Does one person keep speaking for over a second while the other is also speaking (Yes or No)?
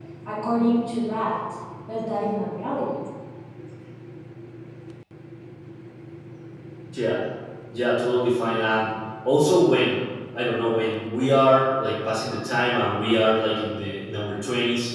No